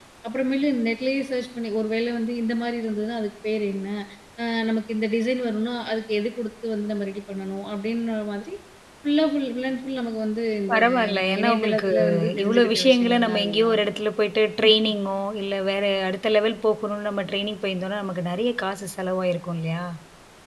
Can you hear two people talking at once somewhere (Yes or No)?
Yes